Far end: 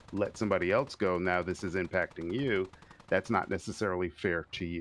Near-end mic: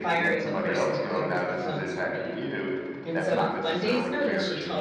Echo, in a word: present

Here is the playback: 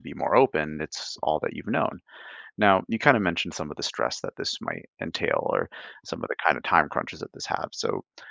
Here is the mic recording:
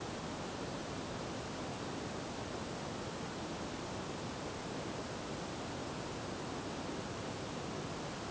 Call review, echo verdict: none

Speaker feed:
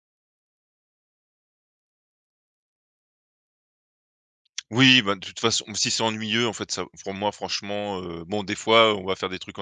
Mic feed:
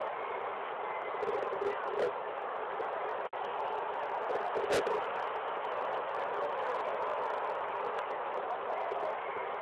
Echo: none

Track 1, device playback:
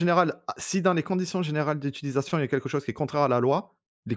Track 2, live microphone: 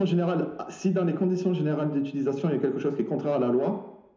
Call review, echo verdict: present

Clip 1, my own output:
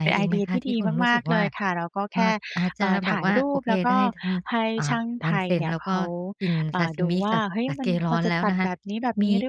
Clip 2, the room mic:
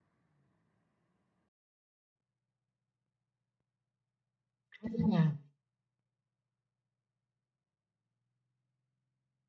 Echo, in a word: none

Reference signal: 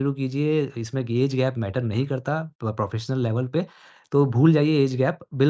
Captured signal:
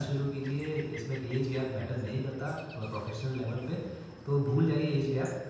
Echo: present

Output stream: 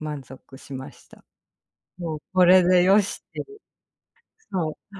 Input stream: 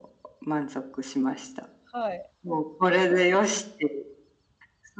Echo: present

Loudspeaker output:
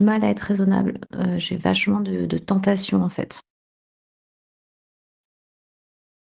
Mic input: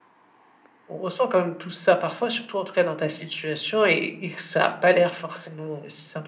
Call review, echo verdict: none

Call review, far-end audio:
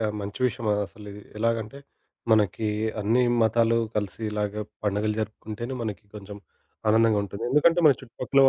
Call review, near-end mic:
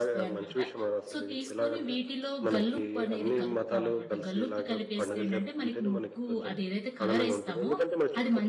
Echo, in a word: present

